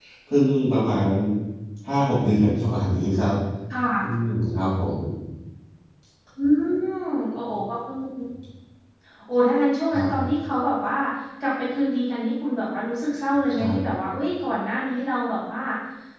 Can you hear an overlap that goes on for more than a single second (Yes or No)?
No